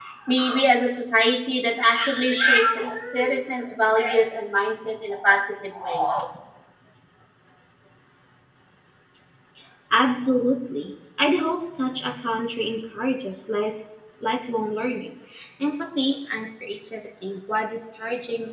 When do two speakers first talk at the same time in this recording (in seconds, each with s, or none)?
none